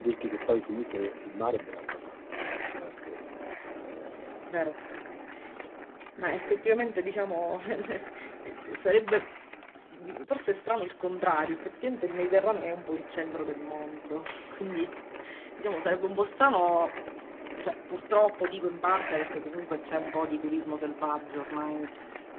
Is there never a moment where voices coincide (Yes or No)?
Yes